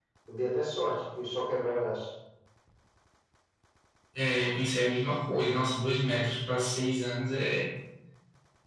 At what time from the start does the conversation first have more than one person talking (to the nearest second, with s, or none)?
none